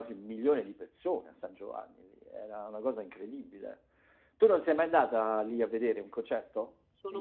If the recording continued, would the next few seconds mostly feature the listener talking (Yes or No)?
Yes